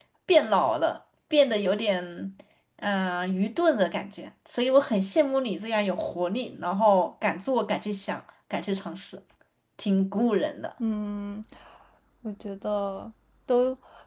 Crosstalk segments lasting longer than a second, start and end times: none

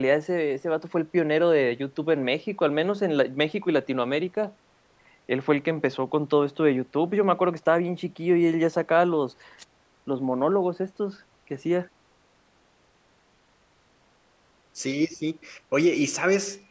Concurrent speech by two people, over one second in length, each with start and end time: none

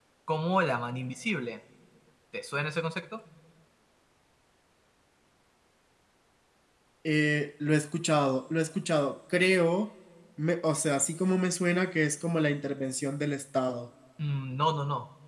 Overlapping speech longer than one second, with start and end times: none

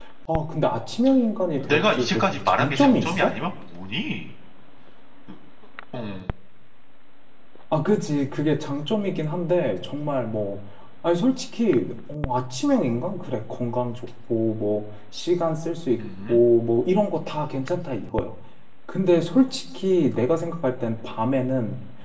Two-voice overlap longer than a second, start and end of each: 1.7-3.4

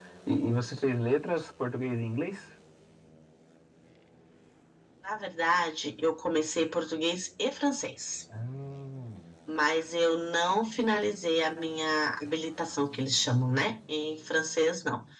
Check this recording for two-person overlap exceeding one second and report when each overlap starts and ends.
none

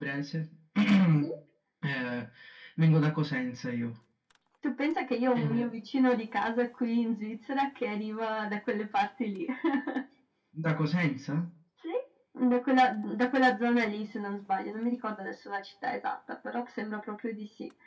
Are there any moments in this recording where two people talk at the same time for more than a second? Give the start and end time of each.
none

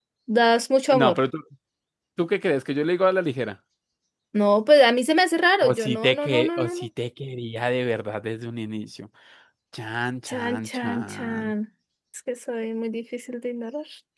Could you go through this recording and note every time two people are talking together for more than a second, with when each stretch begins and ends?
5.6-6.9, 10.3-11.5

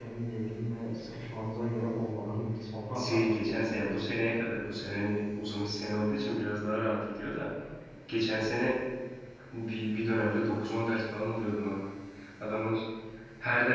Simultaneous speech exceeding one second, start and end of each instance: none

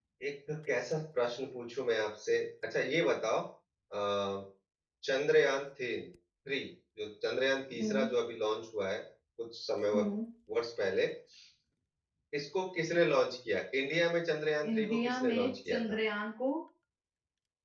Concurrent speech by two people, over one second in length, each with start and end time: 14.7-16.0

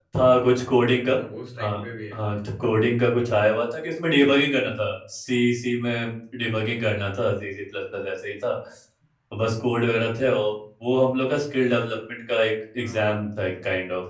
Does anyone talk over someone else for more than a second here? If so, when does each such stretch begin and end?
none

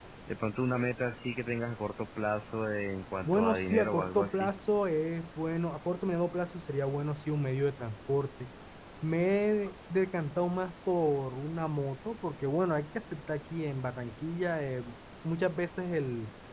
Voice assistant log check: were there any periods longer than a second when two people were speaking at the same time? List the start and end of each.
3.2-4.5

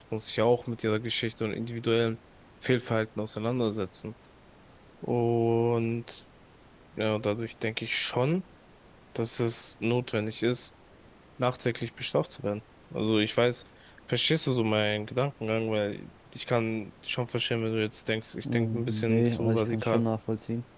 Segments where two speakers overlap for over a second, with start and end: 18.4-20.0

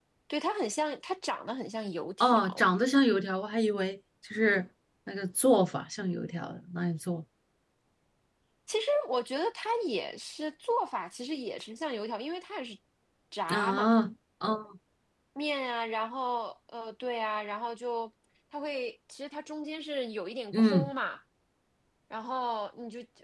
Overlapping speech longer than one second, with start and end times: none

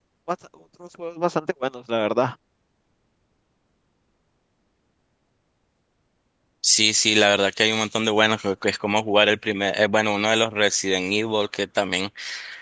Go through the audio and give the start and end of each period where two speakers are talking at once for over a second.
none

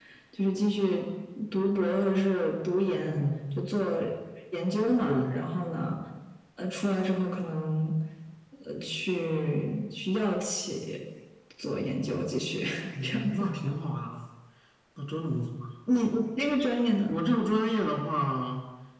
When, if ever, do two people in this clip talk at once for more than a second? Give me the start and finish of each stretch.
none

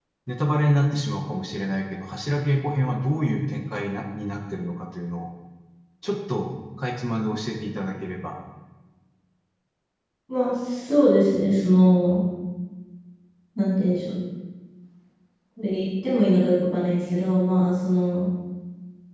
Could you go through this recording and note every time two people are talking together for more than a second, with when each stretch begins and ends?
none

